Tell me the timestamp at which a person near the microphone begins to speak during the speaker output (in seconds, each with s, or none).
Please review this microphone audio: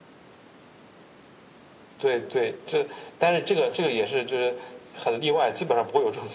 none